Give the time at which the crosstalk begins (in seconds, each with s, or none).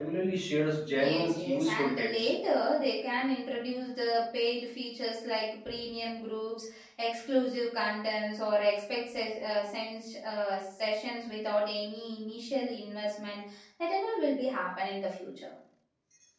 0.9 s